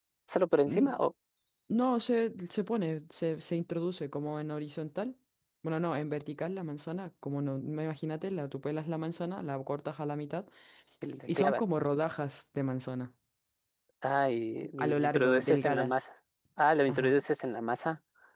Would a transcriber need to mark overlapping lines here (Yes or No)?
Yes